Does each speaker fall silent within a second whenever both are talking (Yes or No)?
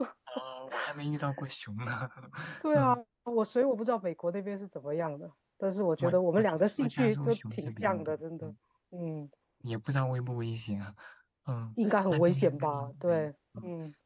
No